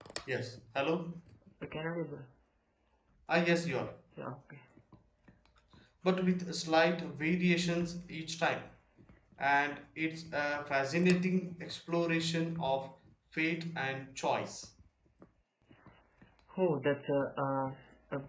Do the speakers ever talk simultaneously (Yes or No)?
No